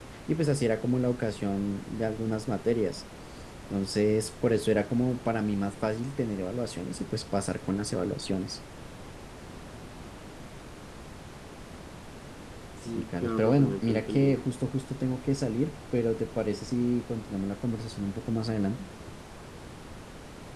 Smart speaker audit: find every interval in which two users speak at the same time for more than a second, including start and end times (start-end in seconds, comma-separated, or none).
12.9-14.5